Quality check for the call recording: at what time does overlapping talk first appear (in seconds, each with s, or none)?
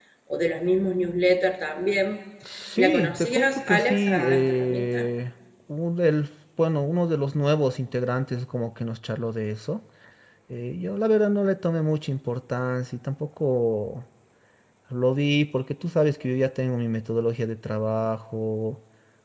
2.8 s